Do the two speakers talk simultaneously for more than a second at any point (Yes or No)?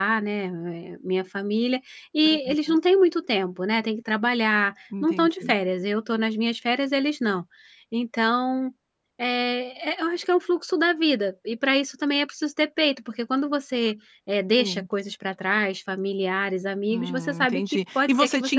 Yes